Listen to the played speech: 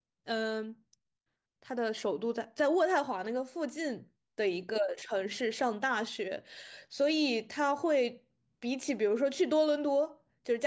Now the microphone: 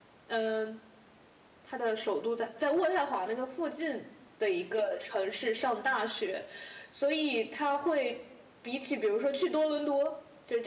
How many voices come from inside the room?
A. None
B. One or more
A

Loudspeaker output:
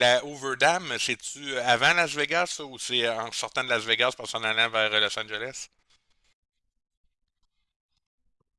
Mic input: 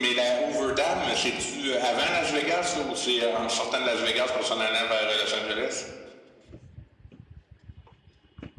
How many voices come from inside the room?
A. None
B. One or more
A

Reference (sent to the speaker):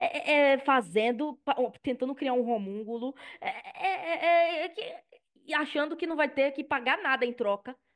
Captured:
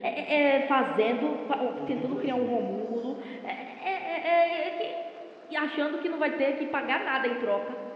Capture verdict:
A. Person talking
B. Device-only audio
A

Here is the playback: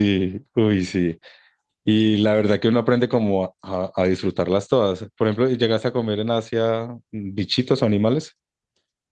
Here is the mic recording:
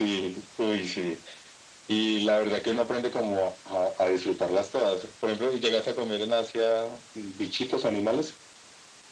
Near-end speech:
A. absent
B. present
A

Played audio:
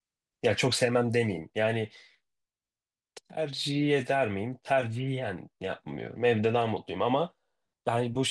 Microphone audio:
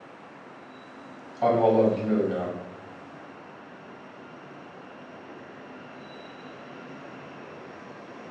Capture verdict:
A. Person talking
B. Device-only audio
A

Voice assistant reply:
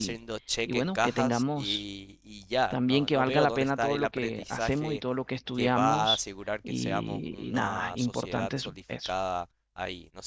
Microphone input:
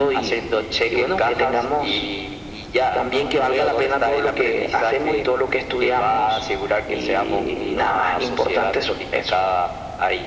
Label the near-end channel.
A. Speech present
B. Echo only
B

